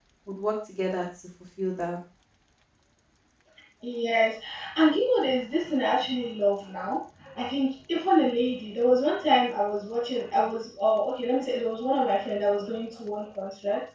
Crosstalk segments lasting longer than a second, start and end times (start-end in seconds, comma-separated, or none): none